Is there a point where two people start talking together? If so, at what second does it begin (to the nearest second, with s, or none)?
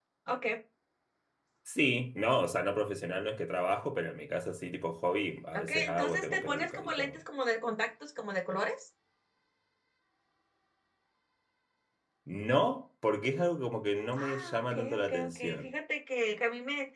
6 s